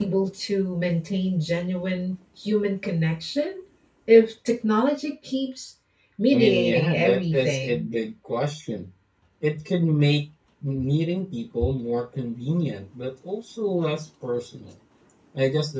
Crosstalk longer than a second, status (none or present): present